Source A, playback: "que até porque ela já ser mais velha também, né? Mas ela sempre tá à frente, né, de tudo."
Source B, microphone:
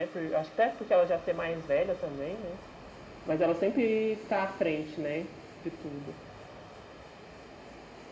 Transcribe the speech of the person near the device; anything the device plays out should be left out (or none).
none